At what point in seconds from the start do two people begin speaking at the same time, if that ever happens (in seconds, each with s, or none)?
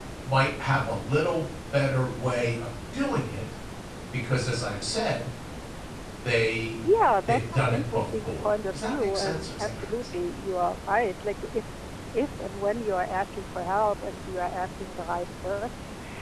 7.3 s